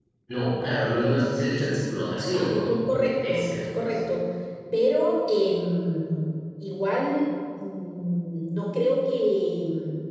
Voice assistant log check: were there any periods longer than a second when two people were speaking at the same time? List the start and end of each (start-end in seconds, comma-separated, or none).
2.4-4.0